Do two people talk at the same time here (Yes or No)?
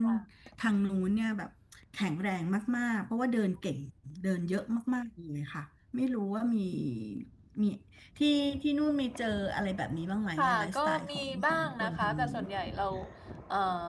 Yes